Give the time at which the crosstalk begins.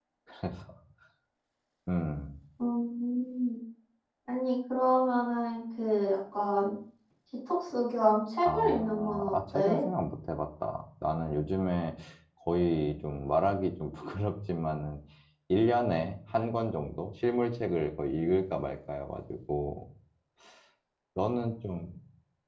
8 s

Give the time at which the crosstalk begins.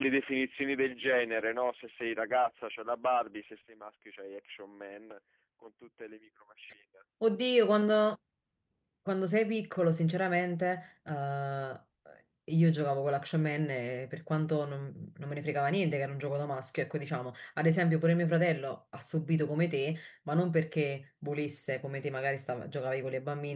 none

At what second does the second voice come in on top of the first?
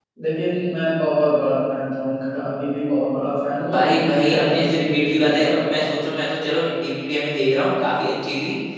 4 s

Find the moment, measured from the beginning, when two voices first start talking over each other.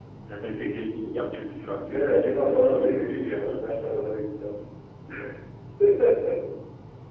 2 s

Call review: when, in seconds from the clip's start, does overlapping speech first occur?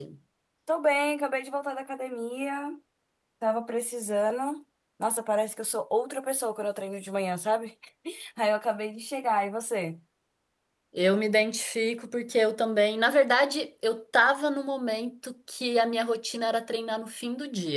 none

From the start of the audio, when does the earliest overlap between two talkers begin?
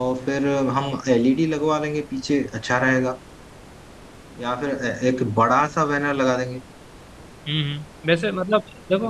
none

